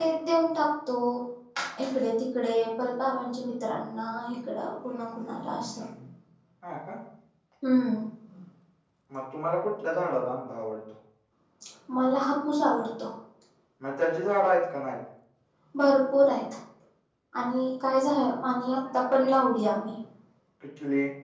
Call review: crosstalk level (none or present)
none